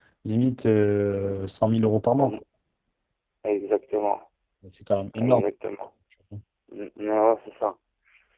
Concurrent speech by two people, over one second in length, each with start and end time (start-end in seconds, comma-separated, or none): none